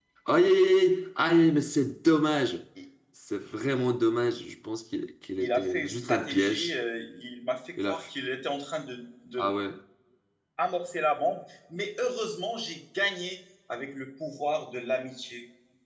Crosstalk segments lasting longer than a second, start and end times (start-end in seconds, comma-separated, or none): 5.4-6.8